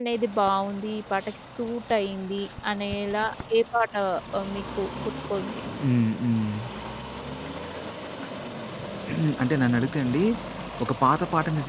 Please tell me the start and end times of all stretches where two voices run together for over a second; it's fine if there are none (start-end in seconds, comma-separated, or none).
none